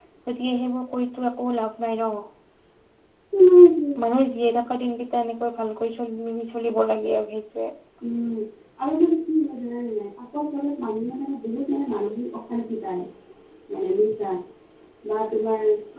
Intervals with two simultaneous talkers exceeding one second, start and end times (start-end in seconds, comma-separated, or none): none